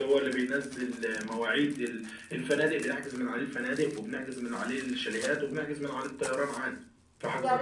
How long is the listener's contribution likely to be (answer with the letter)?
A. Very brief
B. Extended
B